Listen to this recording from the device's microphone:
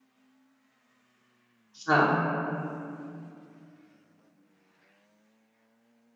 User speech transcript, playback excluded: So,

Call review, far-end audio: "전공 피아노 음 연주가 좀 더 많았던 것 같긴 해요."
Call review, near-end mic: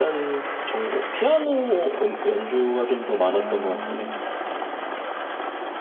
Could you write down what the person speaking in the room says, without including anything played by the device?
아.

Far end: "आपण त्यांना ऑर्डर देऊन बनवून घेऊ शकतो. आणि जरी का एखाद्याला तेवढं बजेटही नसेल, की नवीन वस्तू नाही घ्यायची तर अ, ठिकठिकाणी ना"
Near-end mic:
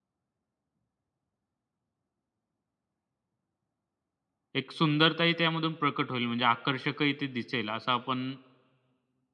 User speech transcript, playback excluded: एक सुंदरताही त्यामधून प्रकट होईल म्हणजे आकर्षकही ते दिसेल असं आपण

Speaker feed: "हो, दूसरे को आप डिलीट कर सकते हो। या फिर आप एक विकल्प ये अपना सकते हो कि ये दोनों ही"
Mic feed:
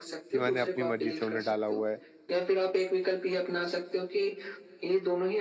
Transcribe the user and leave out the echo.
कि मैंने अपनी मर्ज़ी से उन्हें डाला हुआ है।

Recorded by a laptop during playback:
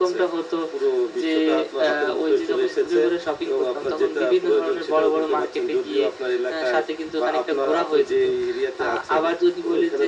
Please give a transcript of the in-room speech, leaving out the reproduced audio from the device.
none

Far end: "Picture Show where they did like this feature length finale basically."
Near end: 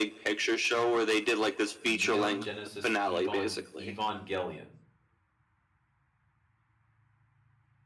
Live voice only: Neon Genesis Evon Evangelion. Is

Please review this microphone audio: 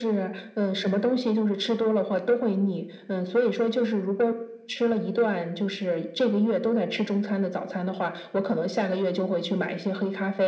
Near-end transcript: none

